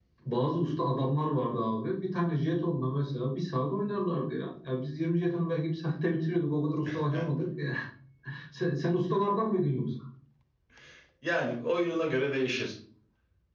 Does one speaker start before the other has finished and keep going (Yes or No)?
No